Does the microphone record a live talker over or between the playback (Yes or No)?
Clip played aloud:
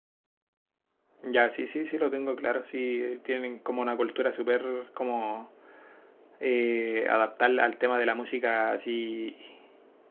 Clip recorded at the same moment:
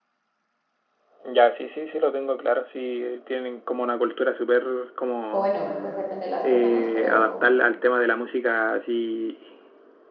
Yes